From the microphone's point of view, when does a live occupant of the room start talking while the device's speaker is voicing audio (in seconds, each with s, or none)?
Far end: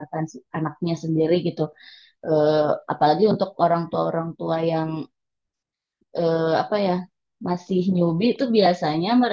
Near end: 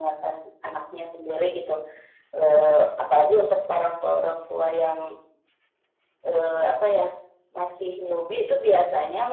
none